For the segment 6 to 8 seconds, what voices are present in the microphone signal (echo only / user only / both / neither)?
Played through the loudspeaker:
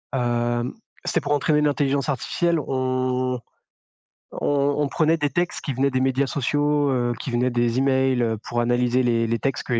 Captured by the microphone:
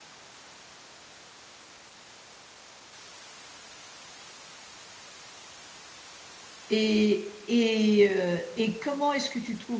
user only